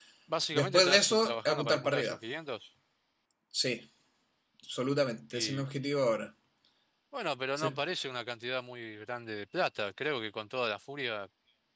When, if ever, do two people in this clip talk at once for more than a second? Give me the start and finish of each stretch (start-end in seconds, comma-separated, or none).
0.5-2.2